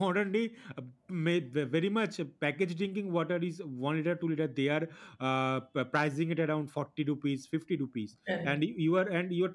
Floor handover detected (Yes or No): No